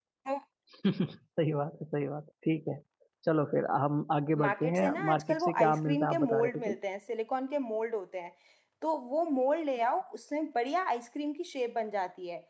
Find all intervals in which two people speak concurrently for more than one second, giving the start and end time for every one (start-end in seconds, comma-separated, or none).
4.4-6.8